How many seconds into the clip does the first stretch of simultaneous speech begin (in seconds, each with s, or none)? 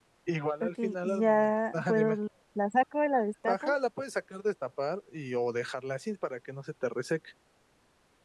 0.6 s